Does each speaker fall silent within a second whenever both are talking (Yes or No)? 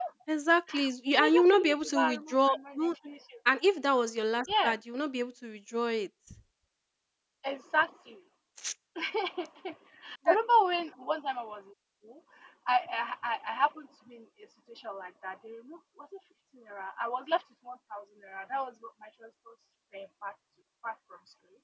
No